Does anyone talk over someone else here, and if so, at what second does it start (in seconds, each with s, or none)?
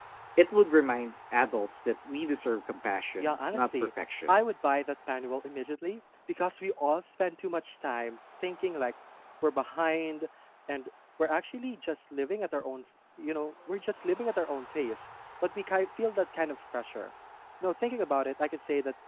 3.2 s